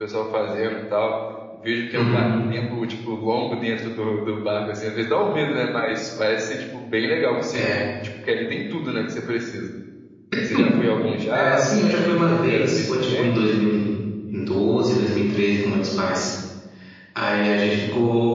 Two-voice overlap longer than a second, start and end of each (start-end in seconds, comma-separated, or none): 11.3-13.4